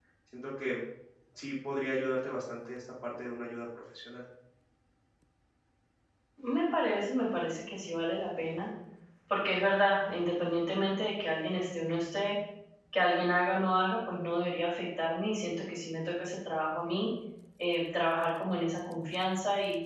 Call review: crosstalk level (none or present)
none